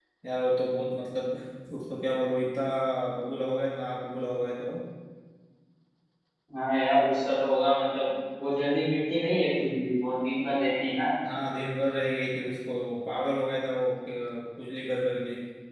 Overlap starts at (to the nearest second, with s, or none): none